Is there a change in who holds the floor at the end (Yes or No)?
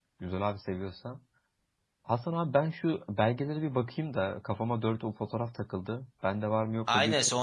Yes